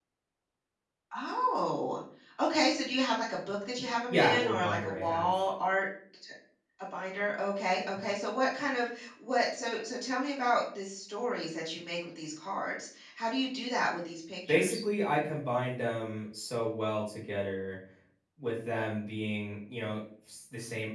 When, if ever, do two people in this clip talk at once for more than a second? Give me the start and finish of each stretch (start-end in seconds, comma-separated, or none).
4.1-5.3